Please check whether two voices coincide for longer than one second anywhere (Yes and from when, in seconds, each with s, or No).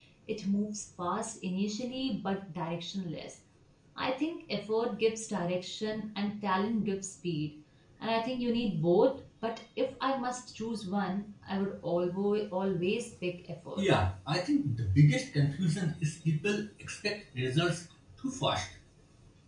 No